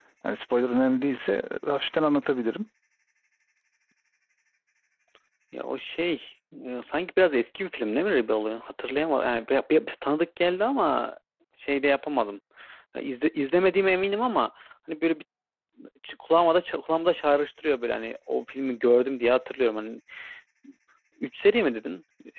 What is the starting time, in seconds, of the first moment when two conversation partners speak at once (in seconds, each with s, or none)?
none